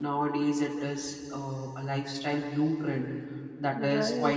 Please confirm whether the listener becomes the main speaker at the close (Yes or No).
No